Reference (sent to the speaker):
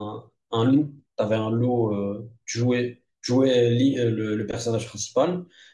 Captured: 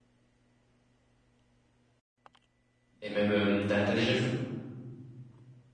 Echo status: none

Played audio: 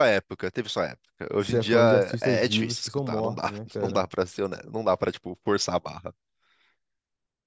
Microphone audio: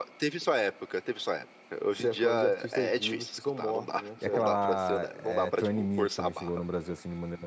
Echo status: present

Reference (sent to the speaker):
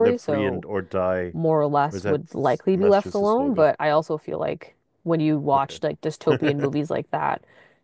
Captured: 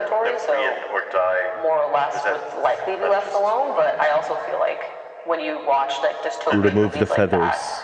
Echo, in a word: present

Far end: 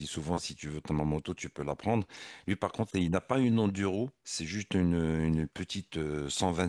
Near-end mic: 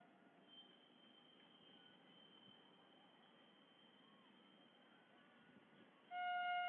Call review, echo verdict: none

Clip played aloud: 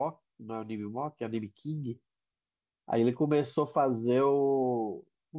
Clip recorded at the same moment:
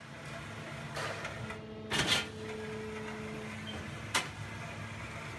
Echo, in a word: none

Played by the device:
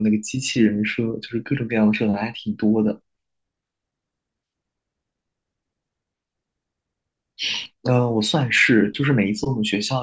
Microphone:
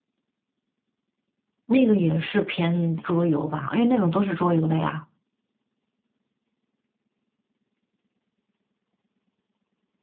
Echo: none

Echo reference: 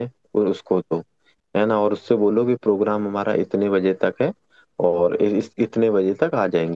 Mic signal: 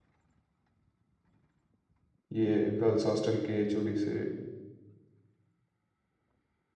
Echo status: none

